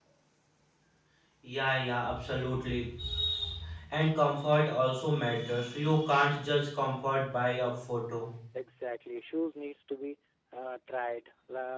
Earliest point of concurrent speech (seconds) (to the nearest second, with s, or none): none